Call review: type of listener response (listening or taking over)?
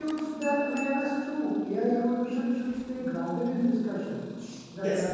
listening